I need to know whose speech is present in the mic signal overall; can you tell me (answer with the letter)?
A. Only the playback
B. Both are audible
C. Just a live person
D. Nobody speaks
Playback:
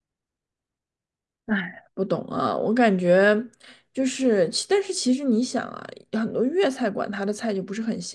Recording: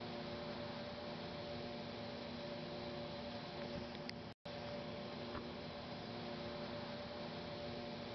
D